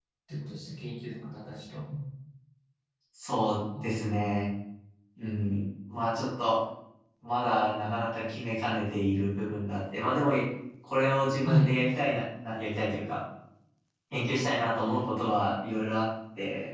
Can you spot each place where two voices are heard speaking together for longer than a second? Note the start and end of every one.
none

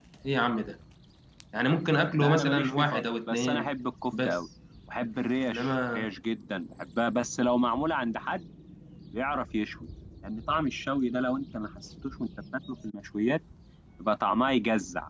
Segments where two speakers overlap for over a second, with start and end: 2.2-3.7

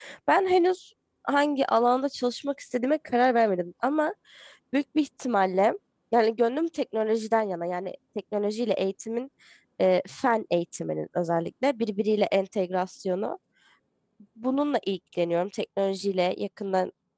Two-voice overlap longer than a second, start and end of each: none

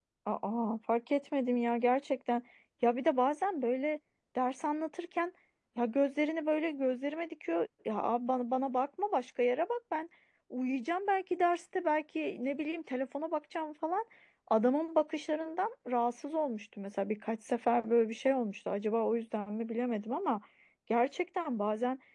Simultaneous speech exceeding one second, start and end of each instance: none

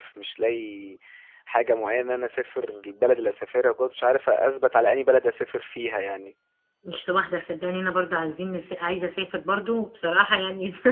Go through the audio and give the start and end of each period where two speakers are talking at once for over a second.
none

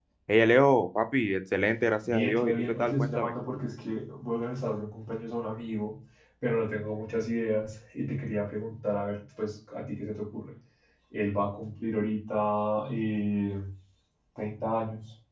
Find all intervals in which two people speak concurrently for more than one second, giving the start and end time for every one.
2.1-3.3

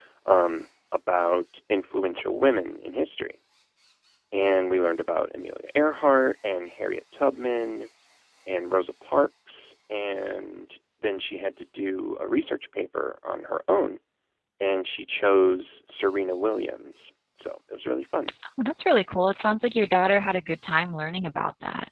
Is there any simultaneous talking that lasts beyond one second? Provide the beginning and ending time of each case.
none

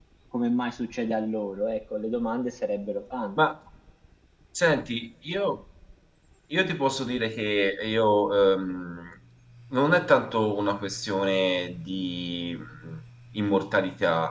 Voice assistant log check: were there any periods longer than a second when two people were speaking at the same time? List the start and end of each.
none

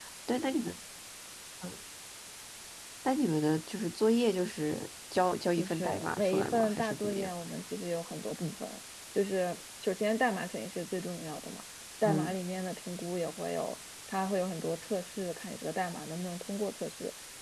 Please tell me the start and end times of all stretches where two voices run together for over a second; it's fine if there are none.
5.6-7.3

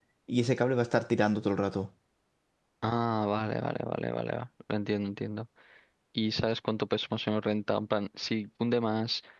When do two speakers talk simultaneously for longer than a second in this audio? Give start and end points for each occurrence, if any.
none

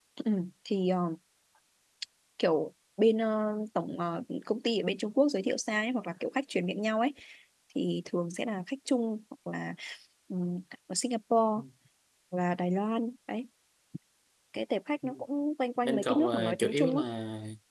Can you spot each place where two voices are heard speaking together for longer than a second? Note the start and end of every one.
15.8-17.0

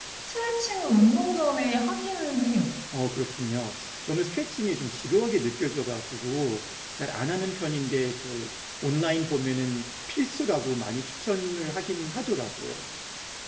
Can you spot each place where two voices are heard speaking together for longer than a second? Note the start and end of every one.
none

